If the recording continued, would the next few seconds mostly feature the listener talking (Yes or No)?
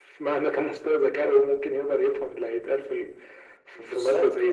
Yes